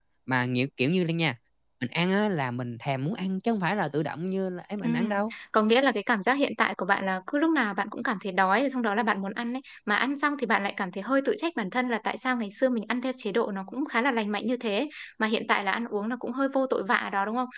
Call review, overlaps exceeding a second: none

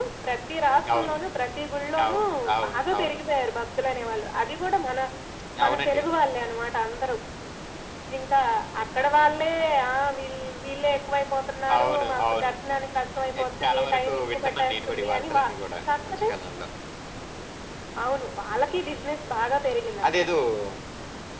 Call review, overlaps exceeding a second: present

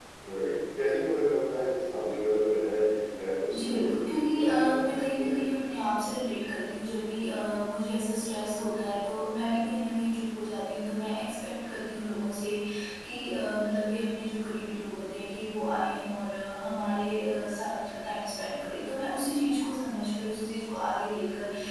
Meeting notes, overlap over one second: present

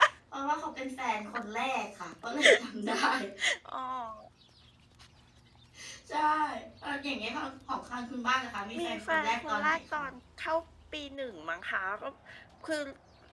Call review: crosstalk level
present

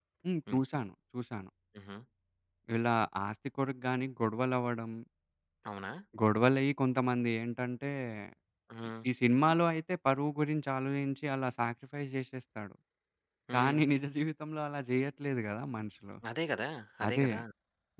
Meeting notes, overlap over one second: none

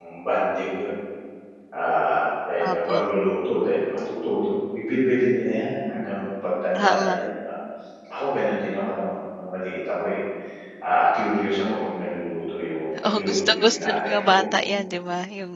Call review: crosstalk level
present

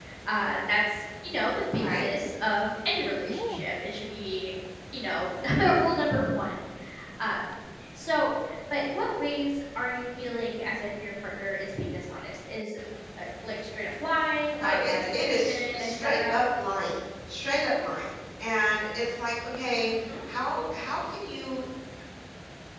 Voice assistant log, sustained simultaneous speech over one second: present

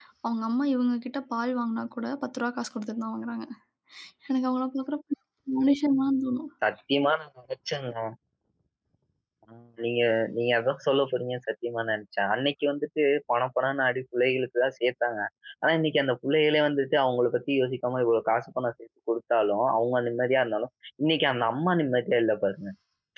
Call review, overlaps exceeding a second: none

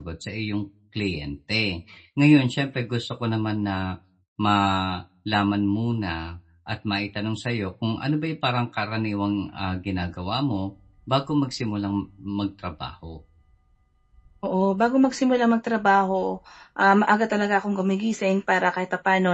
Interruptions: none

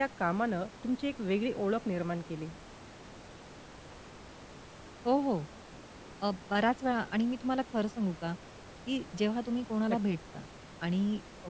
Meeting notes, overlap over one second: none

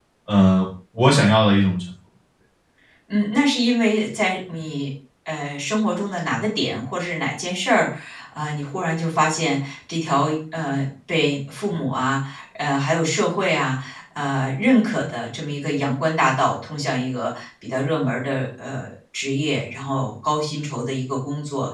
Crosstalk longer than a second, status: none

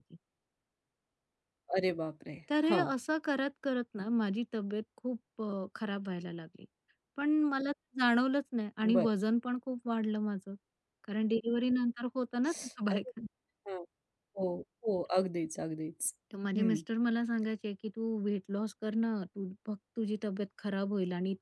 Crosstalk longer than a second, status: none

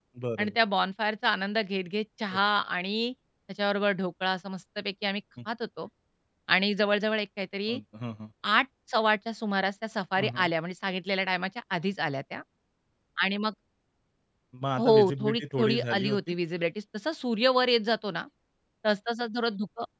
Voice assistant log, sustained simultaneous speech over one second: present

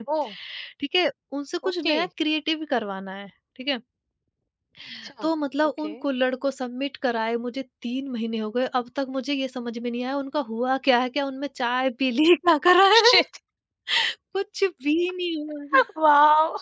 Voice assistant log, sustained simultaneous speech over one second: none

